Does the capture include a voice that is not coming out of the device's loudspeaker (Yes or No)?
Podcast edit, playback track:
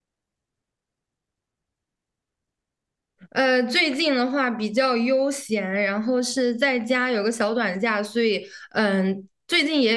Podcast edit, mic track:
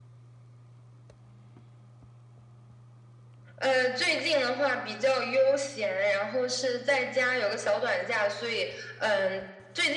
No